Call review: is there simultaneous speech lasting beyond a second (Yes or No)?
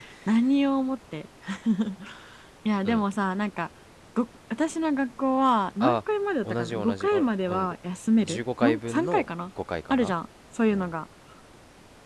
Yes